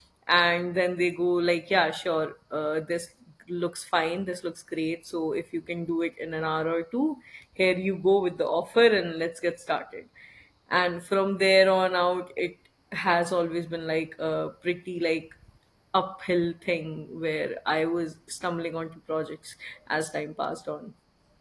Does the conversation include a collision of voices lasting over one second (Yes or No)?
No